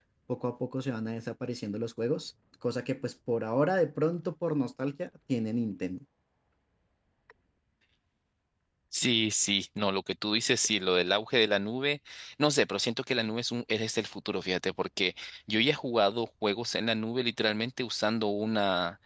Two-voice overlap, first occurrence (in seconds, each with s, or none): none